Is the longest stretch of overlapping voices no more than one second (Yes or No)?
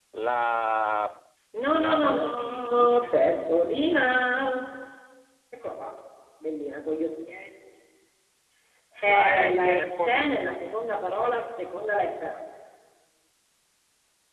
No